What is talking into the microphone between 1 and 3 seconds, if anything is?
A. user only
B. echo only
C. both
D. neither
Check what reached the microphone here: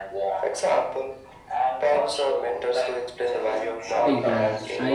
B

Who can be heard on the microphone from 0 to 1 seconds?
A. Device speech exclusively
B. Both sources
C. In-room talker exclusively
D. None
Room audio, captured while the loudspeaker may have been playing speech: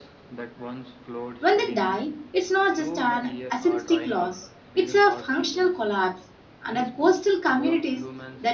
A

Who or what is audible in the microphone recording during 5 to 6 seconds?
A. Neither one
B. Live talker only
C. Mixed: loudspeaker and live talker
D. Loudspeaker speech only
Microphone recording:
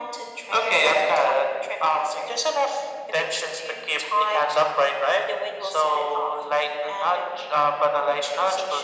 D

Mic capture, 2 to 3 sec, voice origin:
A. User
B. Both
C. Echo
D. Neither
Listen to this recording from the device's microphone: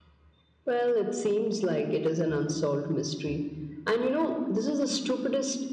C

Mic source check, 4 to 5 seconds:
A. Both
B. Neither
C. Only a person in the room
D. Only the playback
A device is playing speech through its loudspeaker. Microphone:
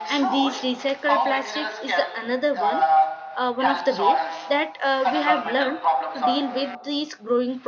A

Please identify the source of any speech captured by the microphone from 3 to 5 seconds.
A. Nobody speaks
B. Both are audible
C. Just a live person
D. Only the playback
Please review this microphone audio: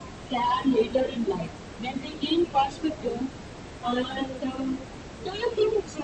D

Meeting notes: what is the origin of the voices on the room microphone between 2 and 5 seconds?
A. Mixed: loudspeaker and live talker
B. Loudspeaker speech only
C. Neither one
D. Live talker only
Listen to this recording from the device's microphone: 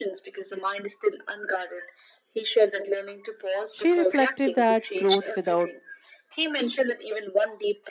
A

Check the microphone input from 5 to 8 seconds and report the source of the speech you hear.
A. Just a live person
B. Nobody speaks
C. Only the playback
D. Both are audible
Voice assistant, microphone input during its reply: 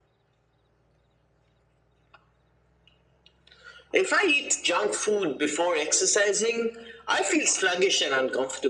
C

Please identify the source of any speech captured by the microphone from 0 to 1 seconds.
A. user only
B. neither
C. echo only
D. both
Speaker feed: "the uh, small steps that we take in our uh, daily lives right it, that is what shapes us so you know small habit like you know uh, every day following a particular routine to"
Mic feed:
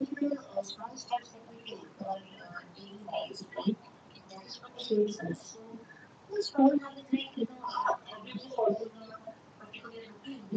C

